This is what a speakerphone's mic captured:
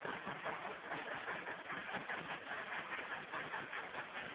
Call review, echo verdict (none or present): none